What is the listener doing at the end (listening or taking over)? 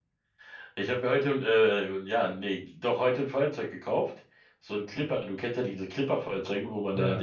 listening